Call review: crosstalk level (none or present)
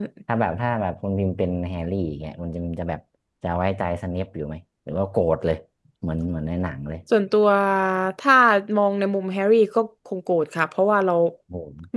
none